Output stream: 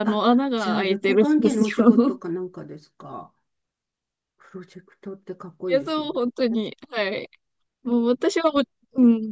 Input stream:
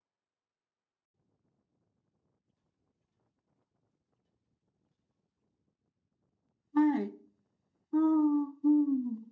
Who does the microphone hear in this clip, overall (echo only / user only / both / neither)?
user only